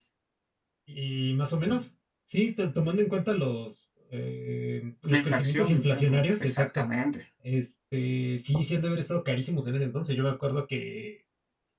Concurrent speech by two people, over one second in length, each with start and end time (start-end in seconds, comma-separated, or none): 5.1-6.8